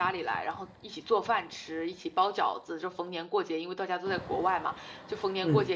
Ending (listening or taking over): listening